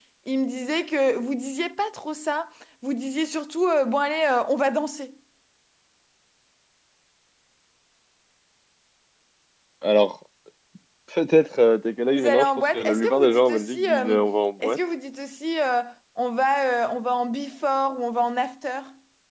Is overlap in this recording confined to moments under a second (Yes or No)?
No